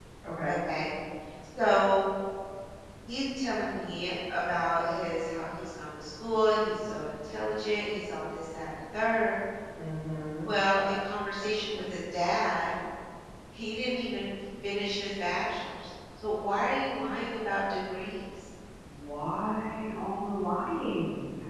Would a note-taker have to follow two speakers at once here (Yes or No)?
No